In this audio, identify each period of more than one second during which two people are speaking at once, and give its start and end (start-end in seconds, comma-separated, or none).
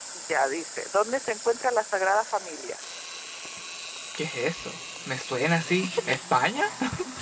none